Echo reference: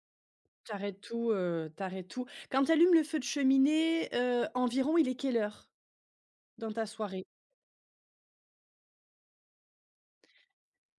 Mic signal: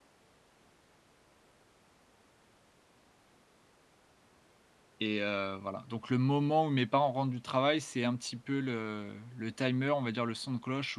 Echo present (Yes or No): No